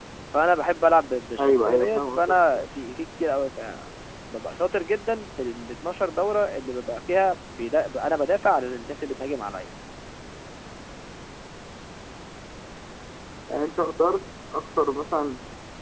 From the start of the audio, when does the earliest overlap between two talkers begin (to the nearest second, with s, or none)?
1 s